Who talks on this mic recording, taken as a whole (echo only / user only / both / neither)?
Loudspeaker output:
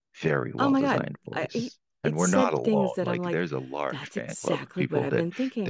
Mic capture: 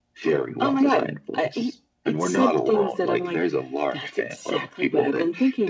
echo only